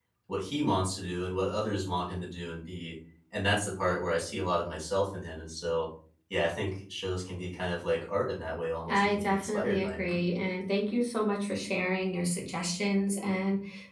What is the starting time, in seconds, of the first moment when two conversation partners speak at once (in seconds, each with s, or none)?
8.9 s